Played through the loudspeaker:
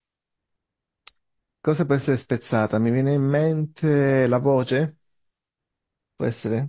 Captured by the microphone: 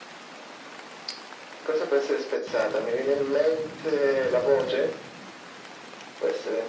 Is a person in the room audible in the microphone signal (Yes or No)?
No